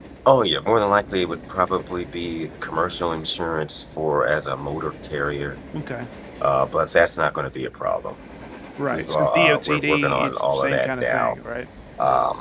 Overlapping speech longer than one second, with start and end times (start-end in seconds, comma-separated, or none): 8.9-11.3